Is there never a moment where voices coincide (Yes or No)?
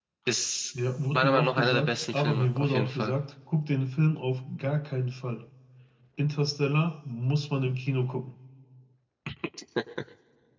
No